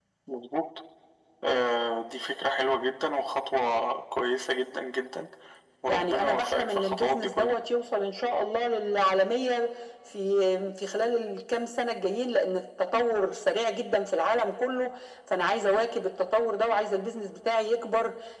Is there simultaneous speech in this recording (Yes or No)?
Yes